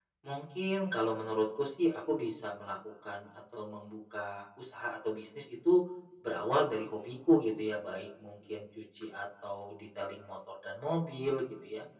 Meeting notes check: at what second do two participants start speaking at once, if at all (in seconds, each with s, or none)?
none